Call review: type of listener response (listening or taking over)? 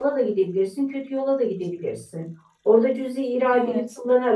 listening